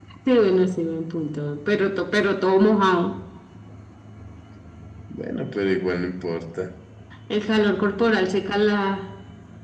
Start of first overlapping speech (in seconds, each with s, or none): none